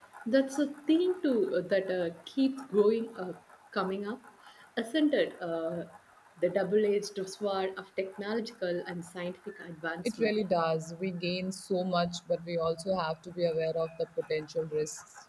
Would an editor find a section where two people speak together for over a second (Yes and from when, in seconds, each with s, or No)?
No